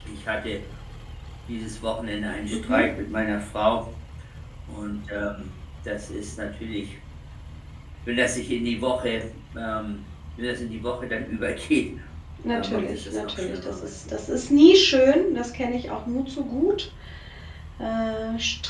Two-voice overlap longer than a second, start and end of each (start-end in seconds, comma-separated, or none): 12.5-13.9